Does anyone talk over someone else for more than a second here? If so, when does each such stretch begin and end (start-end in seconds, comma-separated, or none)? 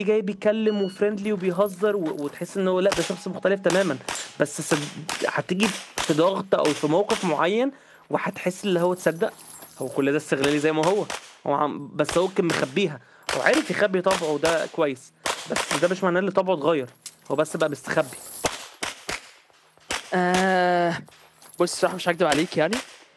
none